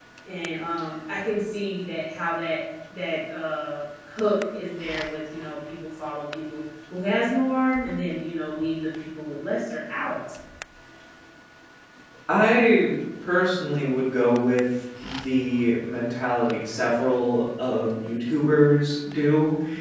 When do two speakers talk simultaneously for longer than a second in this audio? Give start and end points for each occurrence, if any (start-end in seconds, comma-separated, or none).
none